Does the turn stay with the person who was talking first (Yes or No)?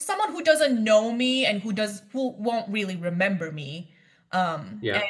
Yes